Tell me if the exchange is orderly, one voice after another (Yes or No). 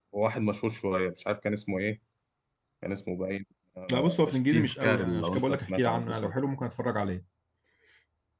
No